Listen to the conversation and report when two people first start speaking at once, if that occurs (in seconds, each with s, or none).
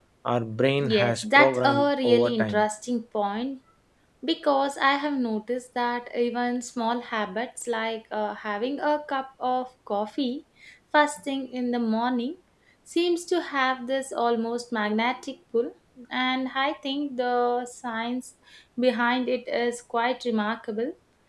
0.8 s